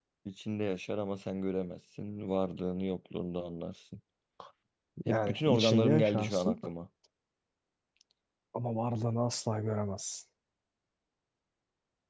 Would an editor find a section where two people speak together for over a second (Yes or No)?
Yes